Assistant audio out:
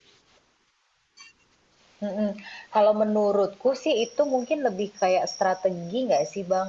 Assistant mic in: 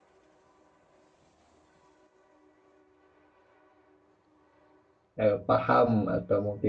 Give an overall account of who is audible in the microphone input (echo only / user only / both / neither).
user only